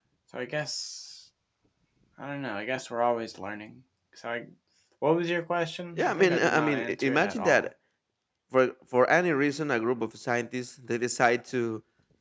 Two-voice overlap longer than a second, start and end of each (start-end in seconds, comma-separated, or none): 6.0-7.7